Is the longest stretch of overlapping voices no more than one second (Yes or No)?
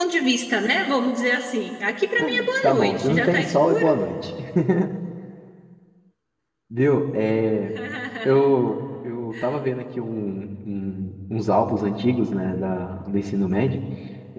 No